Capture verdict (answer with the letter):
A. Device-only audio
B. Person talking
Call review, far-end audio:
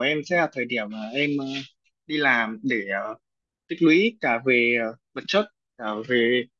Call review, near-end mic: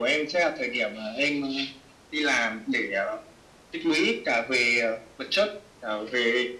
A